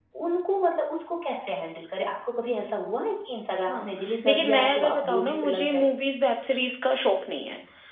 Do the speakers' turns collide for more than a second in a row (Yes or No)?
Yes